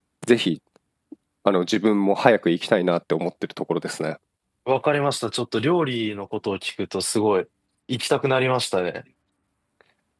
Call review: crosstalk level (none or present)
none